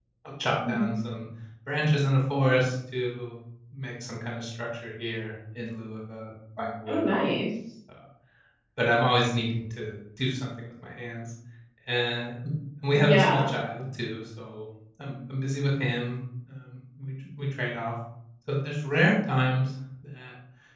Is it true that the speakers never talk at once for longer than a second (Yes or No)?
Yes